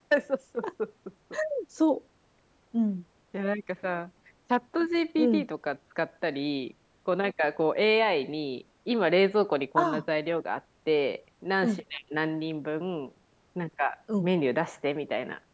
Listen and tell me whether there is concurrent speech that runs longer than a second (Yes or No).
No